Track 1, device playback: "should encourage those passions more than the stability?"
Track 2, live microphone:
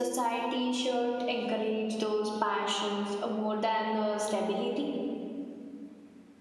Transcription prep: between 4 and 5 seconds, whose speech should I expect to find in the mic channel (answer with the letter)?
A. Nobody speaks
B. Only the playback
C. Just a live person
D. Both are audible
B